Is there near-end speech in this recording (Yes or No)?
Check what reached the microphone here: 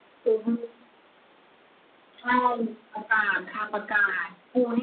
No